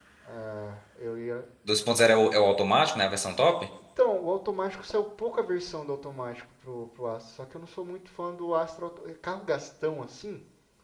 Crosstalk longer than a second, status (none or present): none